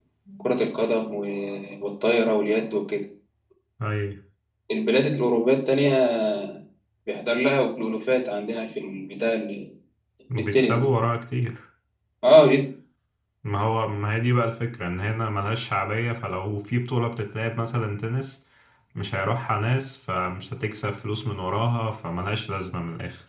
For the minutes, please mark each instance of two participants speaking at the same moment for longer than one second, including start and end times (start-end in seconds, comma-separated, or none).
none